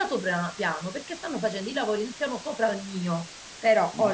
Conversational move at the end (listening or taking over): listening